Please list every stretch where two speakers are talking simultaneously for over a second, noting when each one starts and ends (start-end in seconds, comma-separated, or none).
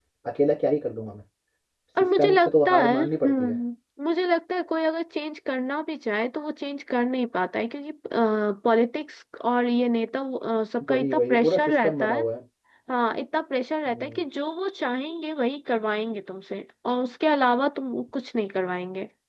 2.0-3.6, 10.9-12.2